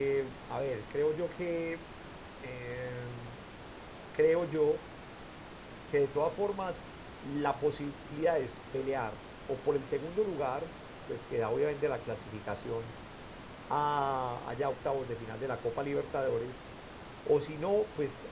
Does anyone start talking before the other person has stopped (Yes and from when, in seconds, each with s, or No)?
No